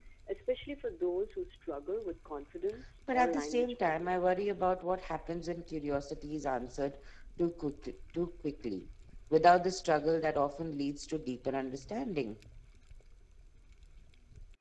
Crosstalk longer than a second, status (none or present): present